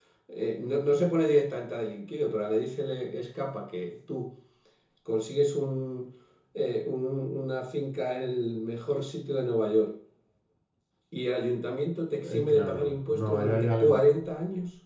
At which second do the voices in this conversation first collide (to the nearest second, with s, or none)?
12 s